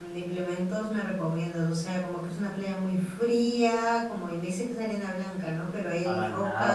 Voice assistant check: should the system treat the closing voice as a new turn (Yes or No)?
No